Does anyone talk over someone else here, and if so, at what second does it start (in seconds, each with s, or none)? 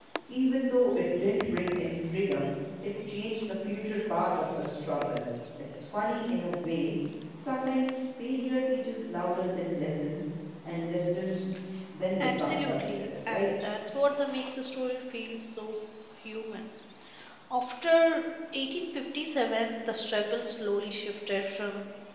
12.2 s